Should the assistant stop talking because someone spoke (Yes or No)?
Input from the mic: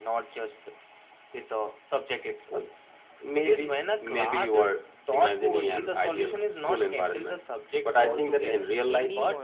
Yes